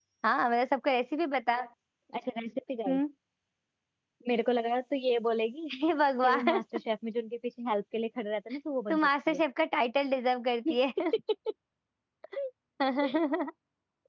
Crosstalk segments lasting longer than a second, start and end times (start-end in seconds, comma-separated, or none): none